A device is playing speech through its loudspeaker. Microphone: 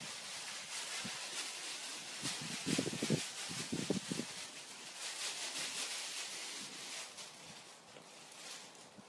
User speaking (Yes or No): No